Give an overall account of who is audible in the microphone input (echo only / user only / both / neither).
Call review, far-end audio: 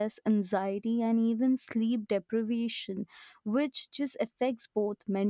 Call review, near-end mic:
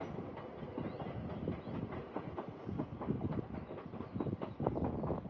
neither